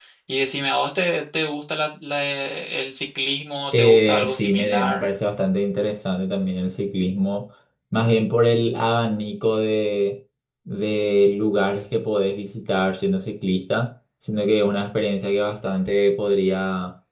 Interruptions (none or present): present